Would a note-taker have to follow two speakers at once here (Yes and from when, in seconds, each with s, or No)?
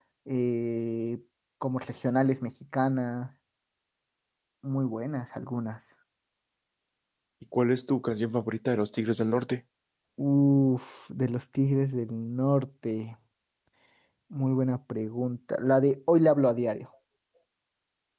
No